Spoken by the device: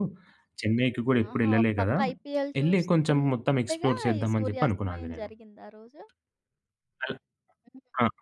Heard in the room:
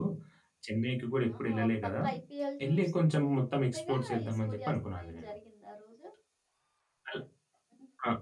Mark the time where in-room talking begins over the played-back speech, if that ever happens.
none

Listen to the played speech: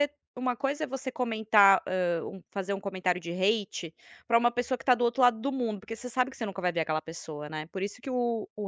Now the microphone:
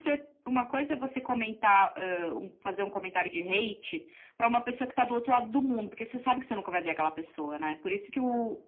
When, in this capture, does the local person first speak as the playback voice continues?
none

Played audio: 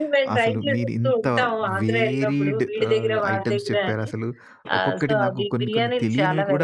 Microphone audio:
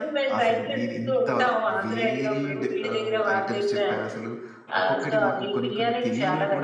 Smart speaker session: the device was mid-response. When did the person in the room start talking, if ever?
none

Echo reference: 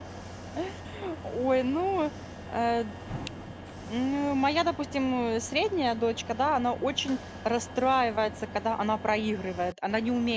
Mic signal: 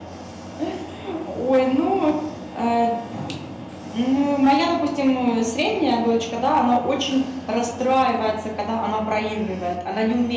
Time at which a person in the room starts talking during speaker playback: none

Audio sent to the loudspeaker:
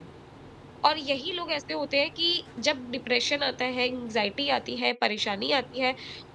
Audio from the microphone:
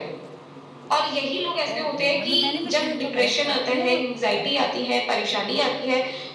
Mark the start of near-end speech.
1.7 s

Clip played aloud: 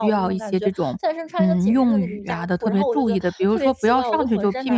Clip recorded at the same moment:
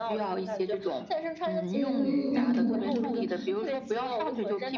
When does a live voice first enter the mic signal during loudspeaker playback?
1.7 s

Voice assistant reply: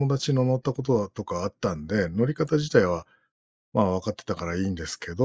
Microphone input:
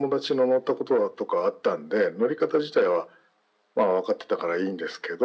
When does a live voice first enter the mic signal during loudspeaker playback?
none

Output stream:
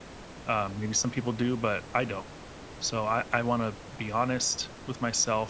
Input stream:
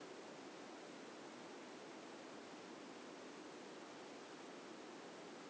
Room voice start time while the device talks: none

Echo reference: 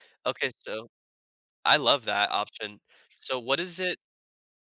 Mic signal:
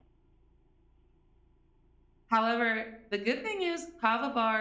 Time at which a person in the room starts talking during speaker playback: 2.3 s

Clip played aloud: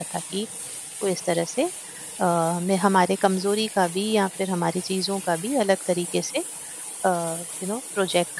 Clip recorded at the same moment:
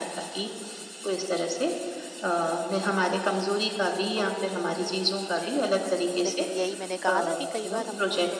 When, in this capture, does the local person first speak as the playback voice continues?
4.2 s

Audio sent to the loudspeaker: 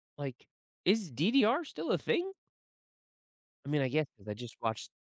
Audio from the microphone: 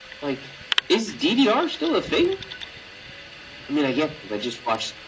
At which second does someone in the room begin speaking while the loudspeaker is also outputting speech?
none

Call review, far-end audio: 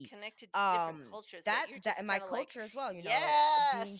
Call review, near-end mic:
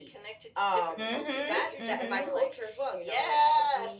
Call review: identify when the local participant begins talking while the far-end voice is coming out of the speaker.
1.0 s

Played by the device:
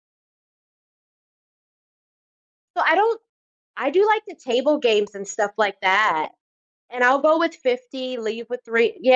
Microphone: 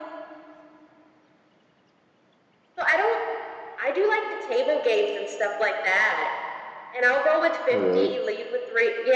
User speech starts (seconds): 7.7 s

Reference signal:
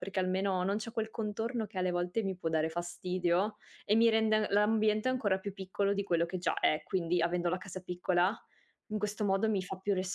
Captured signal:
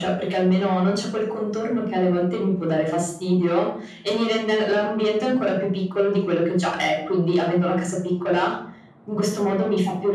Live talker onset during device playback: none

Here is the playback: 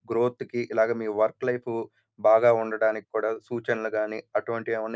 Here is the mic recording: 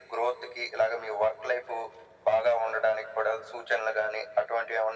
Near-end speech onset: none

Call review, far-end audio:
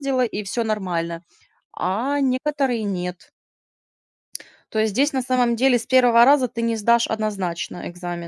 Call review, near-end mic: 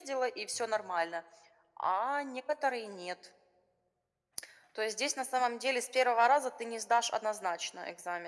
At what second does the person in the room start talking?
none

